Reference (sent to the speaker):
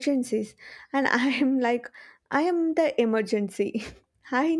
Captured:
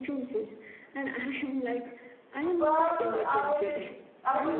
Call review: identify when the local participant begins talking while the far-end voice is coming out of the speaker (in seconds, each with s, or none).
2.4 s